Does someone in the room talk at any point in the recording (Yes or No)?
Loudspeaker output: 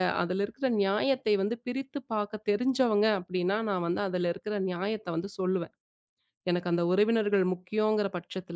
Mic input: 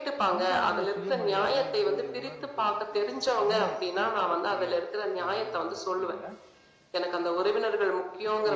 Yes